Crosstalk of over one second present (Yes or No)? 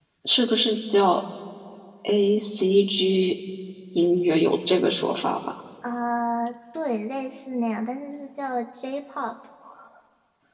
No